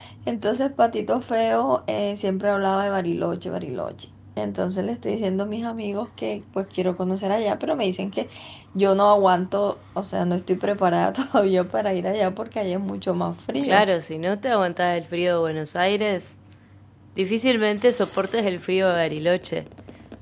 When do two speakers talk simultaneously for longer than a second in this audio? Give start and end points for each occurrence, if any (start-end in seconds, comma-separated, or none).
none